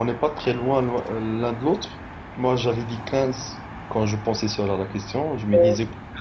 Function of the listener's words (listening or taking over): listening